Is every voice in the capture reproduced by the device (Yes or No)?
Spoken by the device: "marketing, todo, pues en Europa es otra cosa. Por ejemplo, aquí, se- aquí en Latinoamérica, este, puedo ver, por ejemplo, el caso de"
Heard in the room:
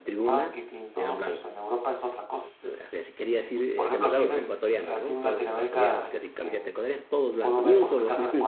No